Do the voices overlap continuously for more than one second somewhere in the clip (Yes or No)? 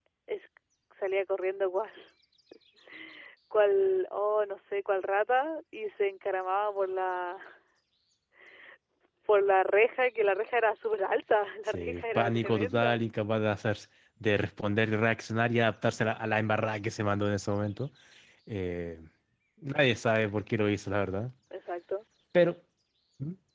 Yes